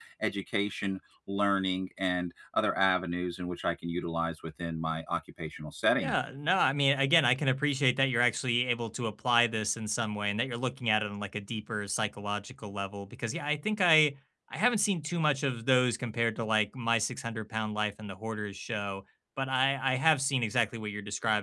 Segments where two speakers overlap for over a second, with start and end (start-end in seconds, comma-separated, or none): none